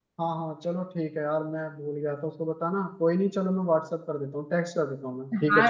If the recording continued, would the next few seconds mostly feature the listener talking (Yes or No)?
Yes